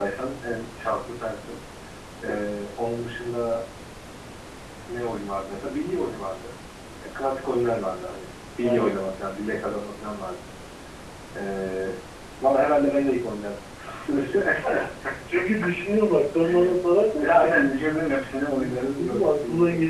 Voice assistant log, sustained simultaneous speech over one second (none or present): present